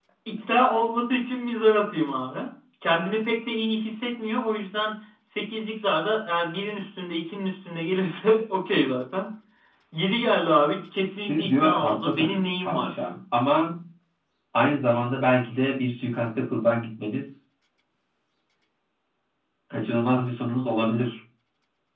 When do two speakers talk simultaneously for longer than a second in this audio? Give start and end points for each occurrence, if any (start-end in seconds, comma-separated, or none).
11.3-13.1